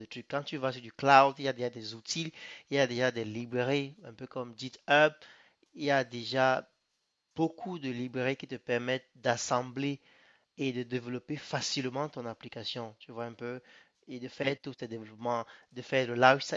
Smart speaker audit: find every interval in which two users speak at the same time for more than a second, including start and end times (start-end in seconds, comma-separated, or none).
none